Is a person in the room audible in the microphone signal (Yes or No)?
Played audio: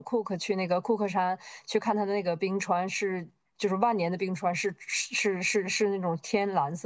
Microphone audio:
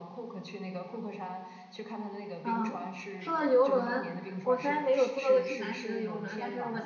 Yes